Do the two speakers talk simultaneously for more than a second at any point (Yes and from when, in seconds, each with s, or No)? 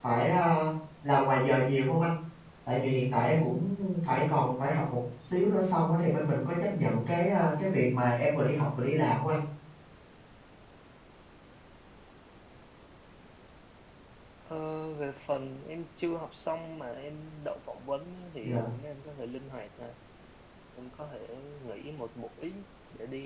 No